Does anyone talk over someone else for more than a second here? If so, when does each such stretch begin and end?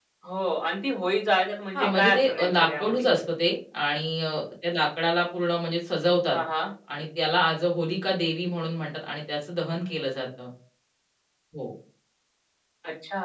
1.8-3.1

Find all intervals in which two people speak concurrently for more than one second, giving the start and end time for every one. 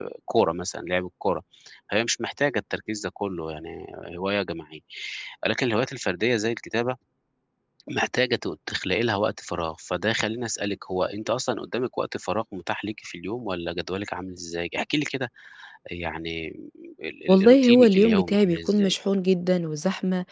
17.3-18.9

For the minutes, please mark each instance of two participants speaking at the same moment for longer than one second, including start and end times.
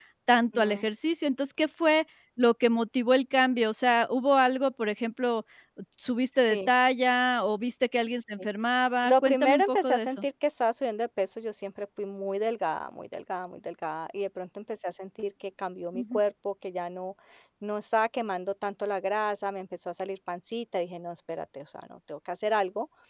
9.0-10.2

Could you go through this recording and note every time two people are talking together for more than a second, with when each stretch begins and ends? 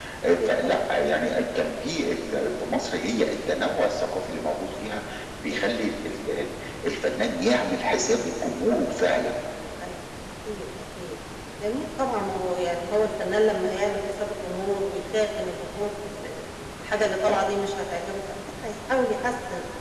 none

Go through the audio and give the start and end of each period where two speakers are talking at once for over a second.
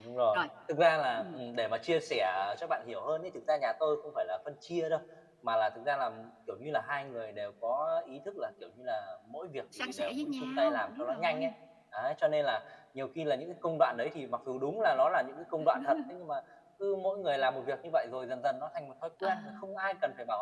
9.8-11.5

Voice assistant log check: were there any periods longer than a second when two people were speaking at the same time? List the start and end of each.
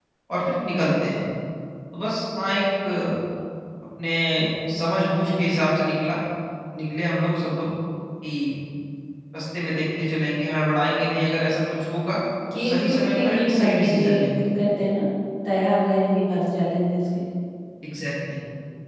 12.5-14.3

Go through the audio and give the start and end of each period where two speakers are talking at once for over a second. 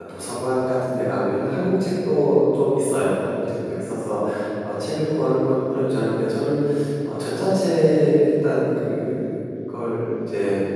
none

